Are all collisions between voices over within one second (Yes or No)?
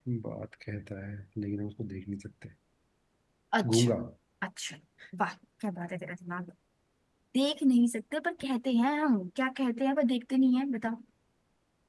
Yes